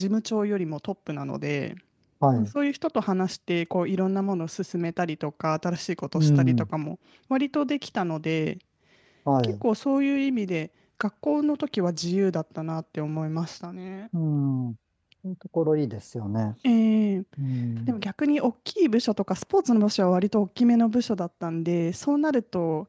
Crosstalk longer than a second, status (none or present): none